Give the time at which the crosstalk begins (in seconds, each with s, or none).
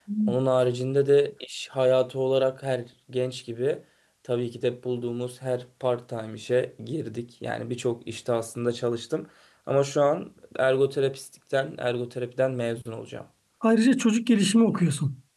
none